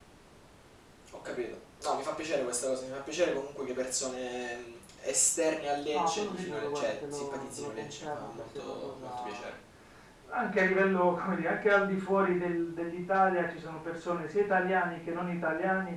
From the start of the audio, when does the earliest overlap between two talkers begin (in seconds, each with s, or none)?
5.9 s